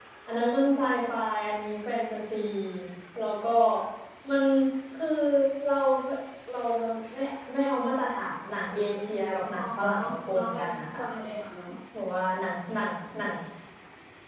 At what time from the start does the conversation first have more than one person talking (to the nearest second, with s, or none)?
10 s